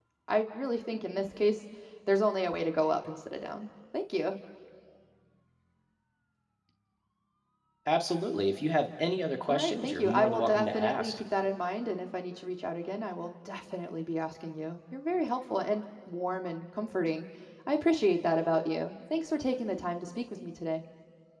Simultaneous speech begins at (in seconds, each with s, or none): 9.5 s